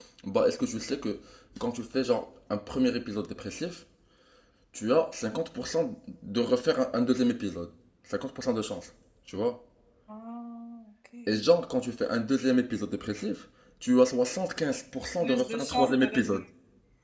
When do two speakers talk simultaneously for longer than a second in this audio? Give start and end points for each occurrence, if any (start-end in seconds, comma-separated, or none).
15.2-16.4